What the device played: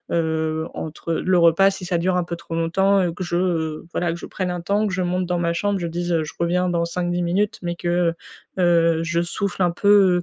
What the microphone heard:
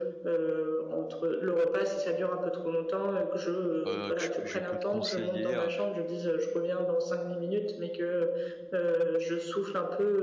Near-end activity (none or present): present